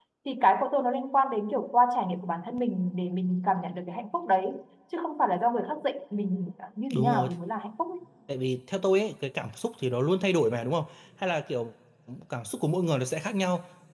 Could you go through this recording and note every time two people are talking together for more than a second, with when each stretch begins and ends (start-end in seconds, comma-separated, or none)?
none